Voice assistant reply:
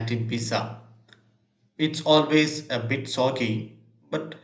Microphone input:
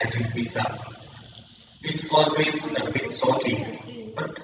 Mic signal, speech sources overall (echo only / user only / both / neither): both